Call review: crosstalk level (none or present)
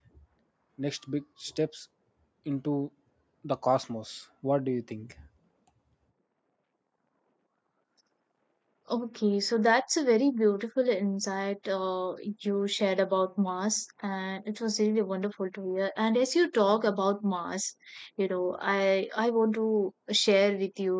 none